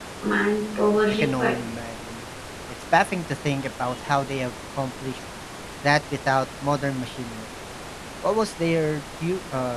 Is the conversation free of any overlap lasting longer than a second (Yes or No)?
Yes